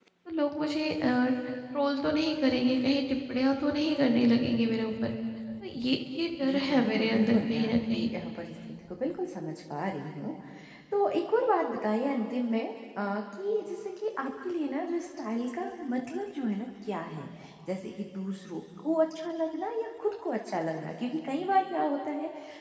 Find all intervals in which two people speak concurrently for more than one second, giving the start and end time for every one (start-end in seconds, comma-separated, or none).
6.5-8.1